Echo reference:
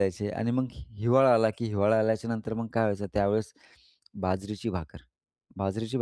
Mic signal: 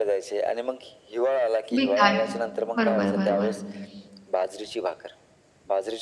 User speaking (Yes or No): Yes